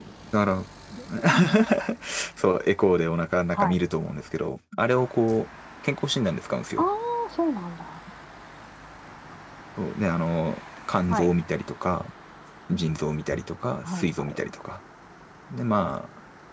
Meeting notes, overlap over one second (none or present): none